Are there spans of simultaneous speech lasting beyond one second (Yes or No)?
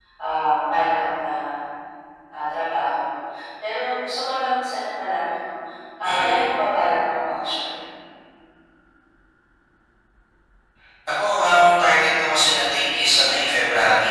No